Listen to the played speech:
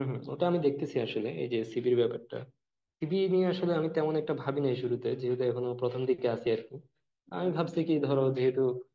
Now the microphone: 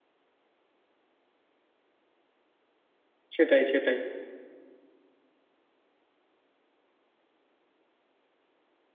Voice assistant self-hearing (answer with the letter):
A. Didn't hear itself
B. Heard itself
A